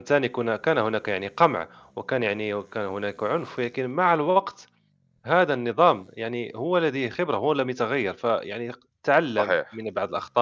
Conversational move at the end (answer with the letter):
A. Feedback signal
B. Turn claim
A